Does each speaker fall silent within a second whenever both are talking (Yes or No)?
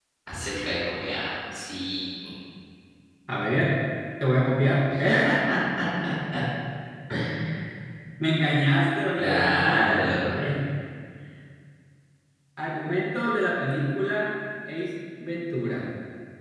No